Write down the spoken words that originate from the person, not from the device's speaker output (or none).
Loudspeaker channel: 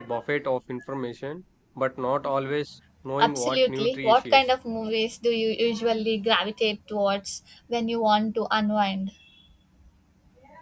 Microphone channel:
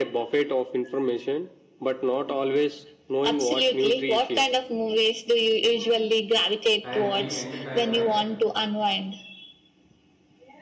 and be entertained, right?